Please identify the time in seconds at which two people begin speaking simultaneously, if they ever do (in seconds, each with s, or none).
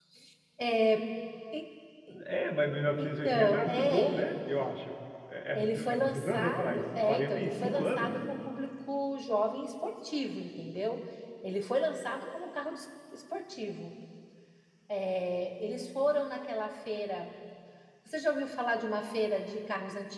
3.0 s